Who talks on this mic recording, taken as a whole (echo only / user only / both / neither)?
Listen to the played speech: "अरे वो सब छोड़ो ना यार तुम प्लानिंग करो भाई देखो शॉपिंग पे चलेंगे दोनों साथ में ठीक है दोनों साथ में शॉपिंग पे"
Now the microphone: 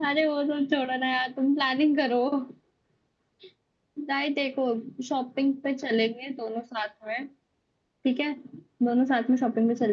echo only